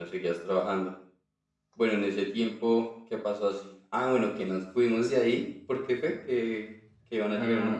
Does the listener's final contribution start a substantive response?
Yes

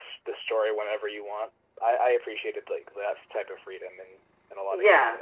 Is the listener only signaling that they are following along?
No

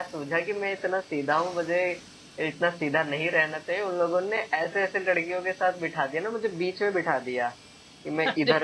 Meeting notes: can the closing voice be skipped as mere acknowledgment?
Yes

